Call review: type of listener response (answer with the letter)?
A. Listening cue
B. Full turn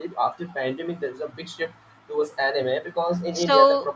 A